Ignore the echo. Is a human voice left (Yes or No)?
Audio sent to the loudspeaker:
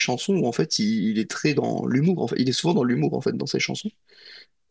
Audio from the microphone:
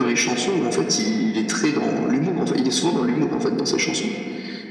No